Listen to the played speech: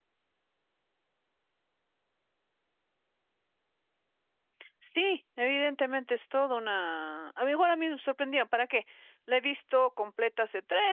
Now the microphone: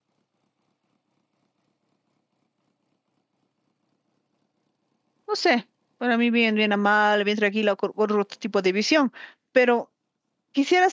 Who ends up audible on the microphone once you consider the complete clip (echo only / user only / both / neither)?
user only